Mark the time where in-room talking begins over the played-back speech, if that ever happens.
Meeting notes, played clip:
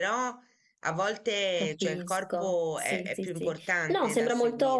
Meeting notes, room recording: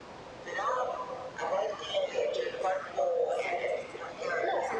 none

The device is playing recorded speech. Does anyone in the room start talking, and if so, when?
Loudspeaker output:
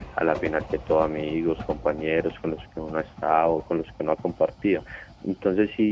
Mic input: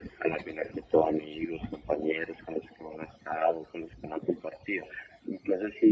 none

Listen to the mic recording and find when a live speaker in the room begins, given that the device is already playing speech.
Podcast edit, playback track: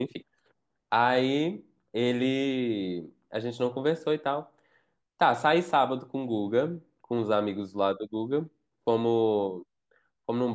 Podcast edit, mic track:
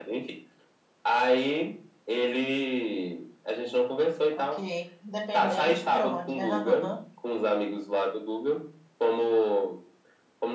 4.3 s

